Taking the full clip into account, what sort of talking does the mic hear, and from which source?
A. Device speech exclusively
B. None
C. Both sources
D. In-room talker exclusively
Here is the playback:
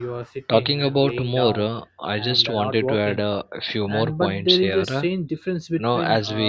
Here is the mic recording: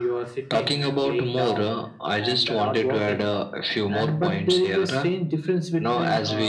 A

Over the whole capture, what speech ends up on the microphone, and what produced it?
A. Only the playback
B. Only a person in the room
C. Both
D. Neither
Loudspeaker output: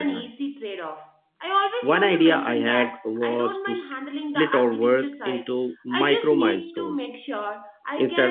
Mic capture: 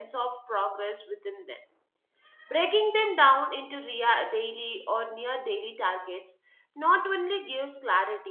B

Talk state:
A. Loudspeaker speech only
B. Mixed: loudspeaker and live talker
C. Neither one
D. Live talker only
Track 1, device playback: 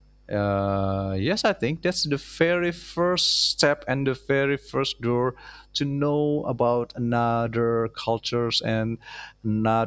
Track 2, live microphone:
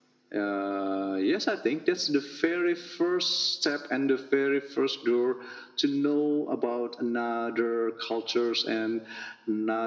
A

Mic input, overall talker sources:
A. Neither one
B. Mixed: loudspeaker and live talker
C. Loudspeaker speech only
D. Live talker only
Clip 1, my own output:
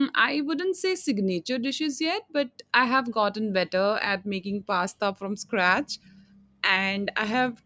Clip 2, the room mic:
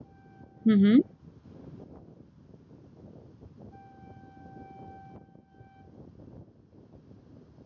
D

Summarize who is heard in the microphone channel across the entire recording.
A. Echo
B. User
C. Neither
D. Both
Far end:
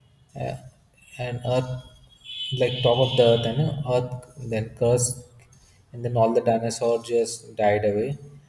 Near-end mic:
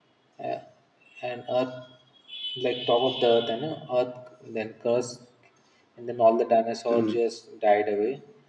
D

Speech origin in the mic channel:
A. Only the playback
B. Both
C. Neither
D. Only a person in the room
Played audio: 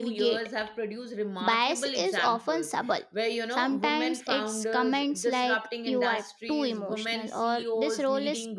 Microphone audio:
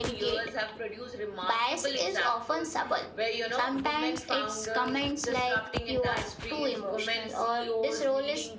A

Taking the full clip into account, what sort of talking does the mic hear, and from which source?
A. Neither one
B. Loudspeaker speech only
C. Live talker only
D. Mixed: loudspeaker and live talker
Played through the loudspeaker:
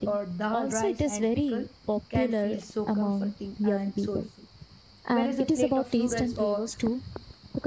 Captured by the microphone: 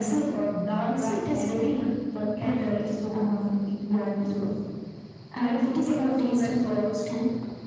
B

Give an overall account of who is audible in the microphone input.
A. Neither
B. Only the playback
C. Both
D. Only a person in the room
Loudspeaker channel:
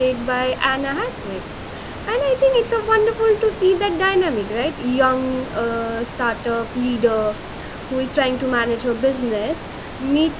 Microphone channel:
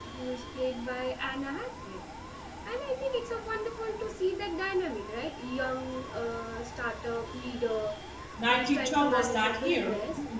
C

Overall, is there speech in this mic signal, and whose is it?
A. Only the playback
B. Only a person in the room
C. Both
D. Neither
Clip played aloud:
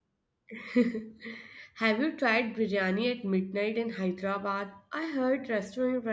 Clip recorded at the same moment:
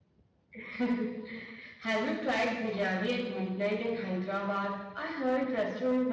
A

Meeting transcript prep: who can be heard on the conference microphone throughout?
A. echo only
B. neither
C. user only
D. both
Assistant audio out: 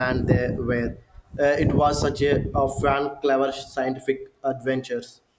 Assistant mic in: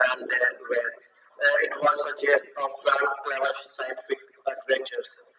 A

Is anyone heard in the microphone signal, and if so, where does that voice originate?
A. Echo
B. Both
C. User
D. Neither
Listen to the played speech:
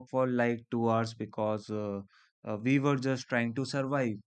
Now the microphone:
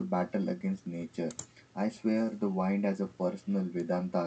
C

